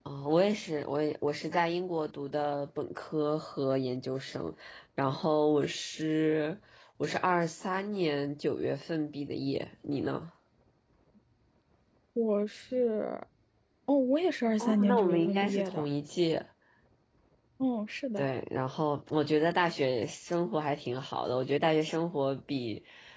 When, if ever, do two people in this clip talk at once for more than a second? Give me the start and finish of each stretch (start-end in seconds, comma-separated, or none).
14.6-15.8